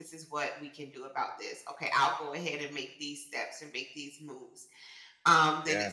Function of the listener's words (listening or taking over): listening